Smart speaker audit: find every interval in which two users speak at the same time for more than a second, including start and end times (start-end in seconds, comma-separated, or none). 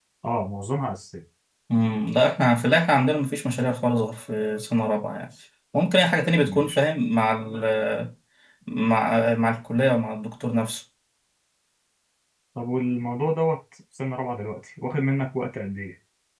none